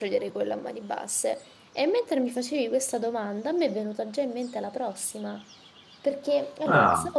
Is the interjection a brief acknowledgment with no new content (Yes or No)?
Yes